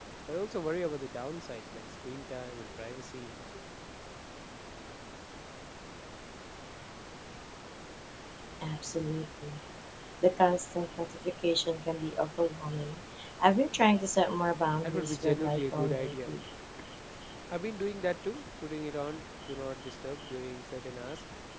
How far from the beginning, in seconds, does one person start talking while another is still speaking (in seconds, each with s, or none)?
14.8 s